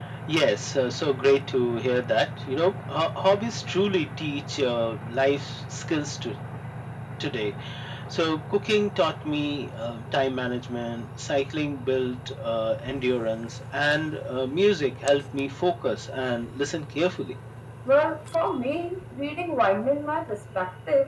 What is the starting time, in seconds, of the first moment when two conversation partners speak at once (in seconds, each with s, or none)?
none